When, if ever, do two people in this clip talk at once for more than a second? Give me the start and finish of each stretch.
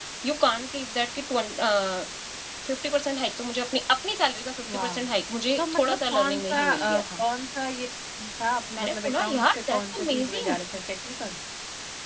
5.6-7.2, 8.8-10.6

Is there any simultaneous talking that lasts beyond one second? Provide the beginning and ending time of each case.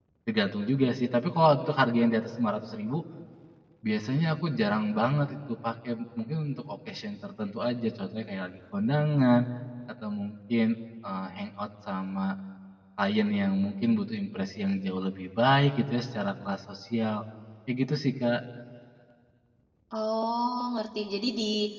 none

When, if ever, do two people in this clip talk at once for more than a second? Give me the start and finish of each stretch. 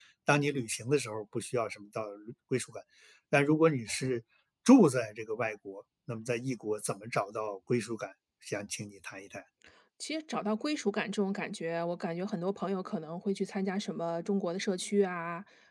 none

